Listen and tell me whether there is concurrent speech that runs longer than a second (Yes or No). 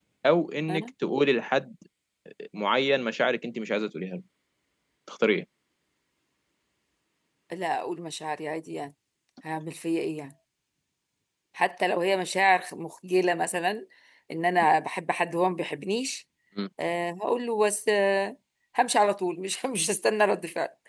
No